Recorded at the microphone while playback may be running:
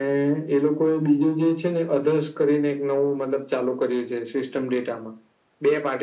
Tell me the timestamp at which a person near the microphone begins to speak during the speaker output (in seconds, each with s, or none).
none